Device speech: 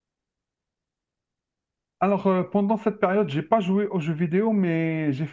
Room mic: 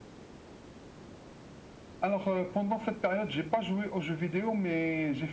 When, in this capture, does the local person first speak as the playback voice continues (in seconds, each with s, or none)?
none